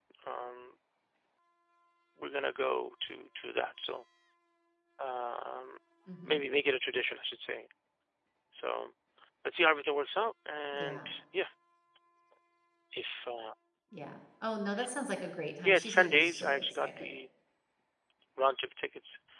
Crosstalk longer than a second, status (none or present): present